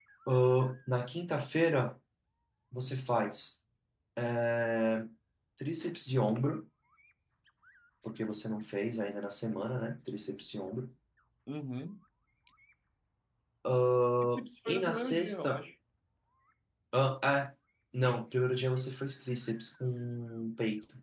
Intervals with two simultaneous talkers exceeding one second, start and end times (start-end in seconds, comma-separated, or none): 14.2-15.6